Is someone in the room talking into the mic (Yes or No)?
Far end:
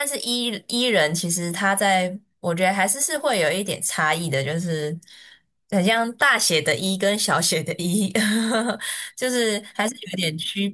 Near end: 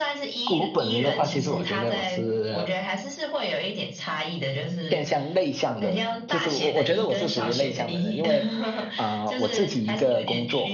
Yes